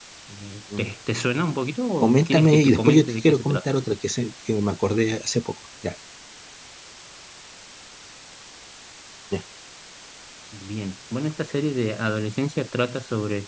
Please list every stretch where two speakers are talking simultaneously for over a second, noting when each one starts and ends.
2.0-3.7

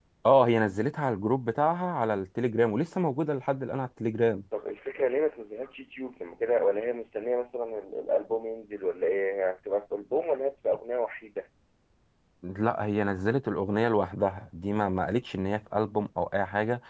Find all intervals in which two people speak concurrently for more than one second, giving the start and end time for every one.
none

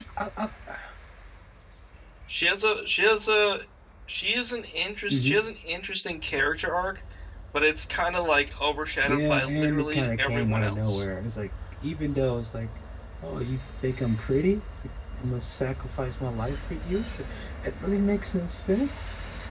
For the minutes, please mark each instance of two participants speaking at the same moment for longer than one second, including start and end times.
9.0-11.0

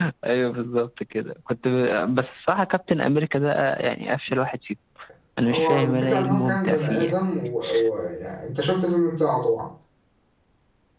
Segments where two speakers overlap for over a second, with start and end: 5.4-7.1

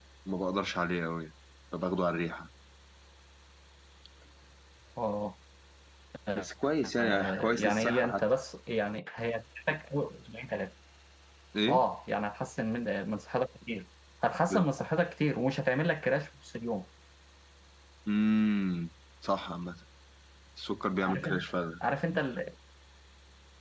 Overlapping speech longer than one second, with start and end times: 7.0-8.2

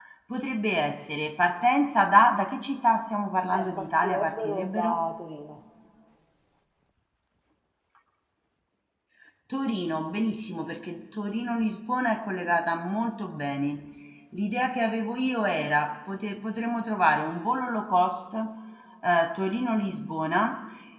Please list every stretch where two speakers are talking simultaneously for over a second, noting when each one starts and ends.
3.5-5.0

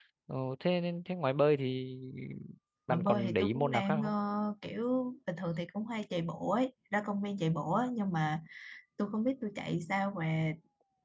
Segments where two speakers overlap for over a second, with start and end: 2.9-4.1

